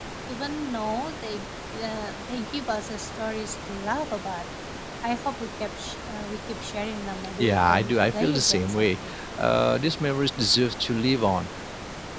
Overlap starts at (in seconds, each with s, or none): 7.4 s